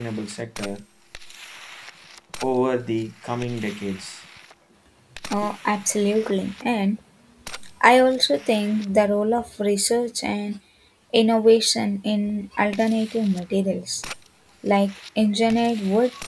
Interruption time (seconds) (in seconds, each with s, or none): none